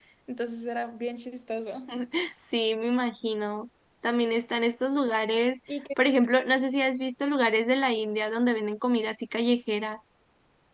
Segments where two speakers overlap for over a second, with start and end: none

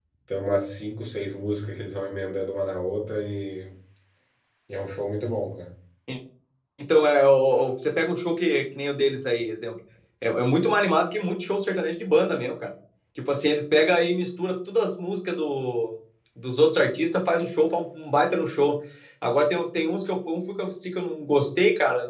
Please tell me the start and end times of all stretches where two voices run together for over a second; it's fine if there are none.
none

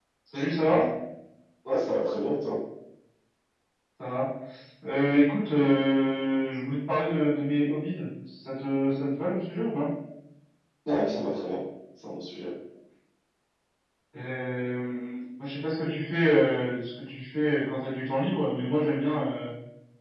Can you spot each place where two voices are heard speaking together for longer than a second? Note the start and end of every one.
none

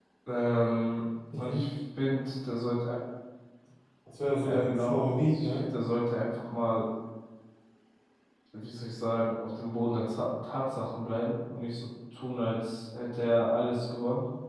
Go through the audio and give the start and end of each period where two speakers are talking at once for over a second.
4.4-5.7

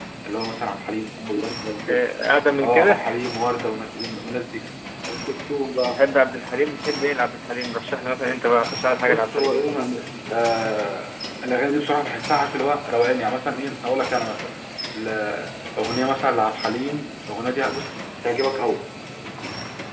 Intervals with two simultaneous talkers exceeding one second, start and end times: none

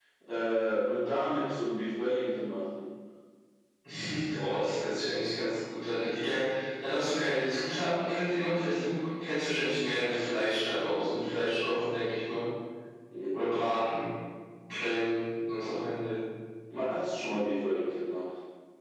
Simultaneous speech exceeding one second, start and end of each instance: none

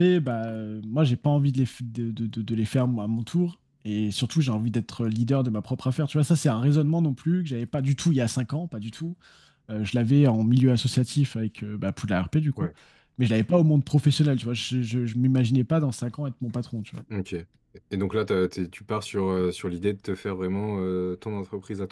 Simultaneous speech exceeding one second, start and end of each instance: none

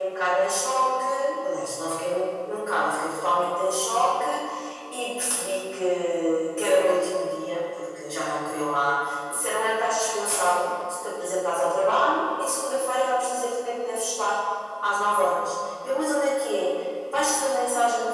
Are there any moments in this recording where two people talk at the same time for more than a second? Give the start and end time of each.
none

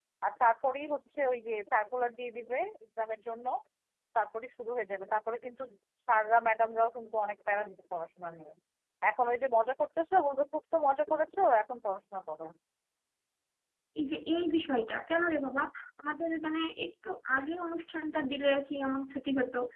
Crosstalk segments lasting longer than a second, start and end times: none

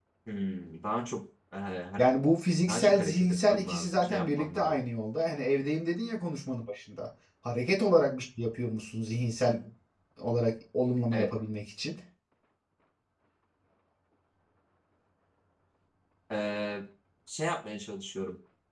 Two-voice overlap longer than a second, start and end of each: 2.7-4.8

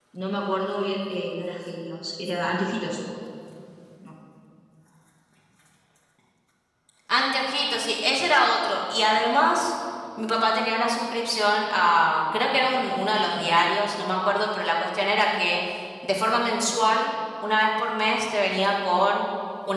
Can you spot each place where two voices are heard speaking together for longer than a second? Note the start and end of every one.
none

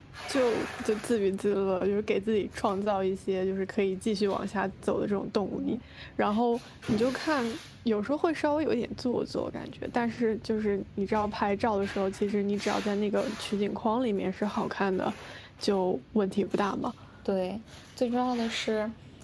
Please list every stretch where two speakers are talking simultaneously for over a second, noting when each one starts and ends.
none

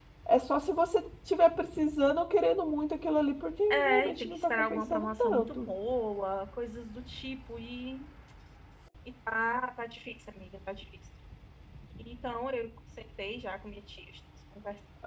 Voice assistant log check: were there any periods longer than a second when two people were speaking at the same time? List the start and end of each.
3.7-5.7

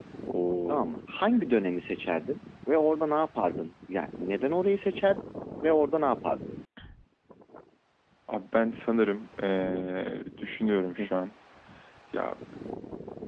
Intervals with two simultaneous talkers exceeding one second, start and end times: none

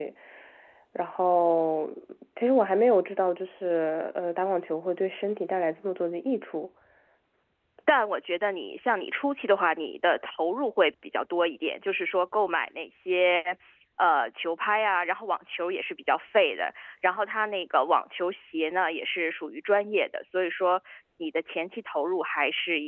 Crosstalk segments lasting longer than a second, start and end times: none

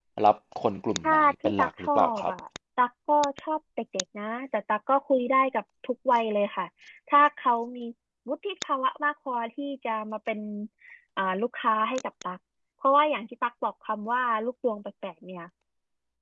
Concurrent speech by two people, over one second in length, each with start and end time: 1.0-2.3

